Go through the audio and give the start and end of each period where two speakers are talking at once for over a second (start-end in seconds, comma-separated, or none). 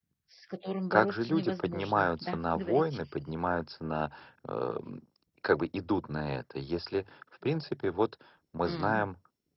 0.9-3.0